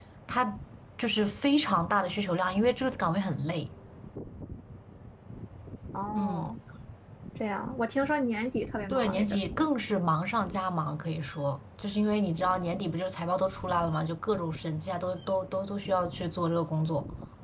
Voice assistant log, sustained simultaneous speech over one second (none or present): none